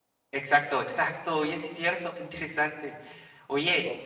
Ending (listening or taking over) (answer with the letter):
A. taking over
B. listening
B